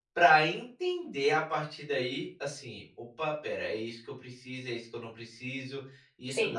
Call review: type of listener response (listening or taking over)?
taking over